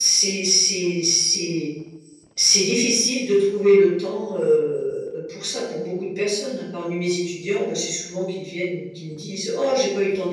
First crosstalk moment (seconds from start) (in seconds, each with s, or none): none